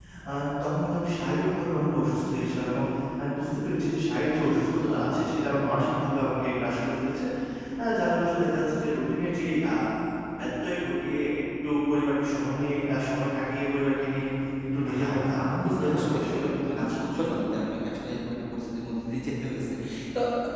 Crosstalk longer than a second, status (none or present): present